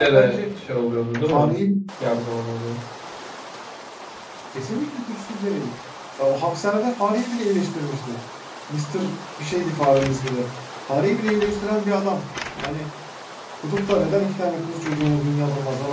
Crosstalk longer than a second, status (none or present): none